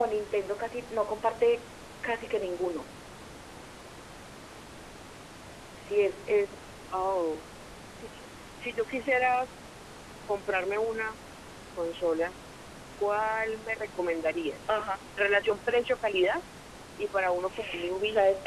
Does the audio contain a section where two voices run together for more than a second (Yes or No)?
No